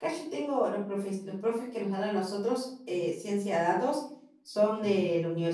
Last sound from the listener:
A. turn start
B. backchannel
B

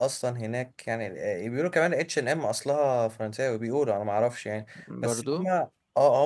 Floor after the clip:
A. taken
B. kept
B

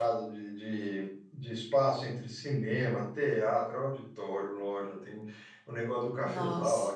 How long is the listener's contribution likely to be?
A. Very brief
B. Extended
A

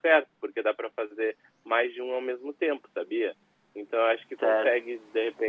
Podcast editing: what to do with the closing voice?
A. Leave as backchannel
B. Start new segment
A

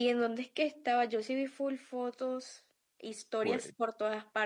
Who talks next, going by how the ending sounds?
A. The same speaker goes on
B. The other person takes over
A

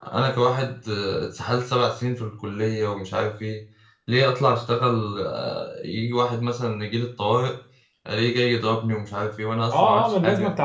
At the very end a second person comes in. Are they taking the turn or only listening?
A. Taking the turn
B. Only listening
A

